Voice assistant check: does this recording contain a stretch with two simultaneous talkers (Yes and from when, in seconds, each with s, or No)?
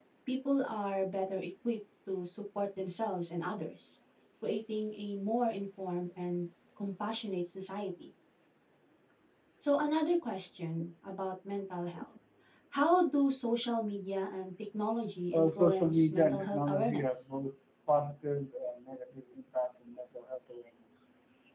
Yes, from 15.3 s